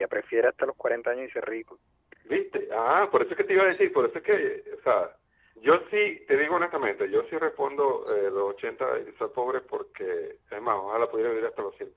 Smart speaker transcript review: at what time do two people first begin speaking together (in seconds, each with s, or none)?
none